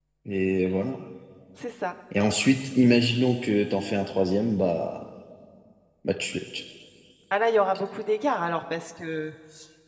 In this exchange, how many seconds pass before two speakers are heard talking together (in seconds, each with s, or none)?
none